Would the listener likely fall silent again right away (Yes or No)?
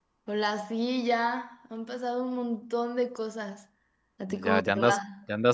No